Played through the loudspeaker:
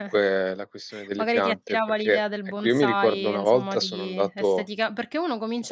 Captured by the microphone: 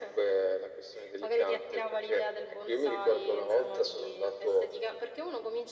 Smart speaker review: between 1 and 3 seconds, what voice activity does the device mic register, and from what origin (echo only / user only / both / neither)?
echo only